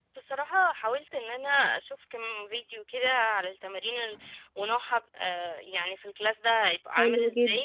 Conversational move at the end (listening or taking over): listening